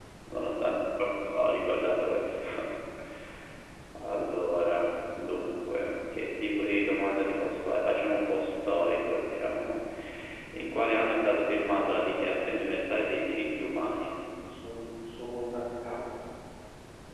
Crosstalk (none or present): none